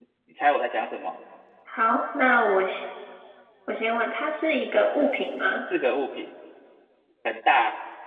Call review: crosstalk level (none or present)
none